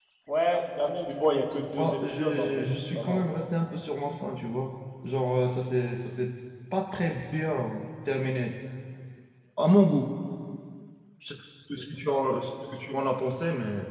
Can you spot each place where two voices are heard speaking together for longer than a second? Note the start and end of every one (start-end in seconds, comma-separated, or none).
1.7-3.4